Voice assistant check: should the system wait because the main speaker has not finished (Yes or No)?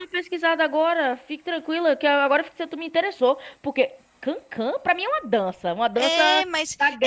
No